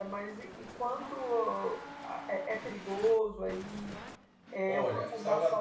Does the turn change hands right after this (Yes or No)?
Yes